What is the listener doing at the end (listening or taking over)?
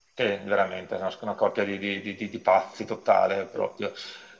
listening